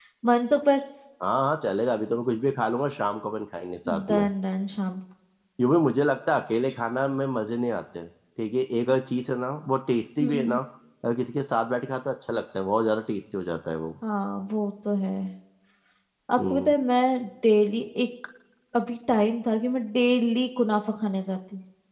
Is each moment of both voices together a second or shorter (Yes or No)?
Yes